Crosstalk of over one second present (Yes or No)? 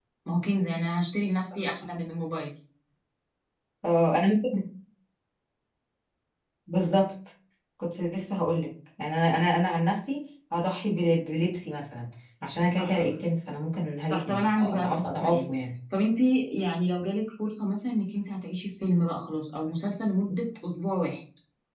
Yes